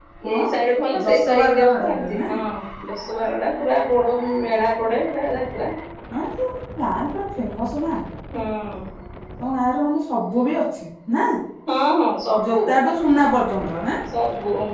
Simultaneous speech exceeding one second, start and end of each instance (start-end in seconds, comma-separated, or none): 1.0-2.2